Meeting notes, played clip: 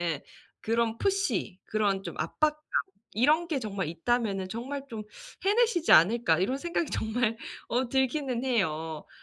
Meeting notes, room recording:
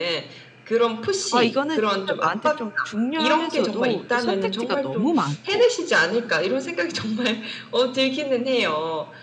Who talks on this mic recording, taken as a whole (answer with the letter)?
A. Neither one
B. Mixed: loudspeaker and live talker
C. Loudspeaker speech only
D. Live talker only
B